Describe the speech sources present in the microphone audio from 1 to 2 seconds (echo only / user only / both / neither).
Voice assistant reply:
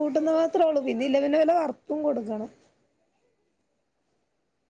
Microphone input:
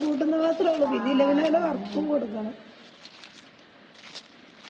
both